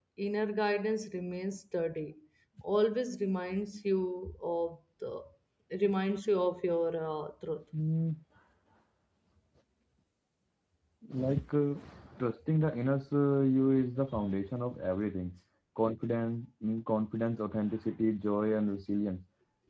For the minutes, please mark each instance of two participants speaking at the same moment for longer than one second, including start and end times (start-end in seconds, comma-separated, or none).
none